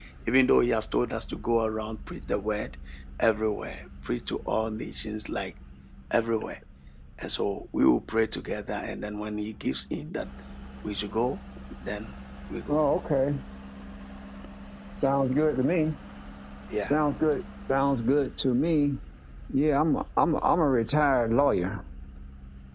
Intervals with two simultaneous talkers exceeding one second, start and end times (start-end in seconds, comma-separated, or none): none